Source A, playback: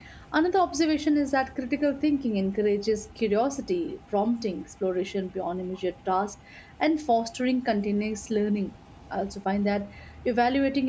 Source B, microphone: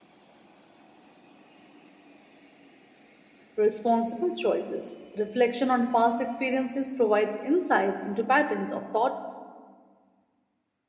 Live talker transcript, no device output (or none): responsible choices. Reflection on past experiences provides insight into patterns of thought